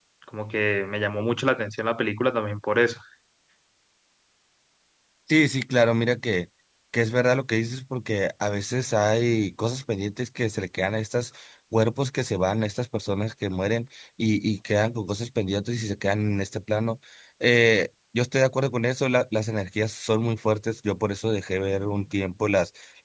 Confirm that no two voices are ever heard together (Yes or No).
Yes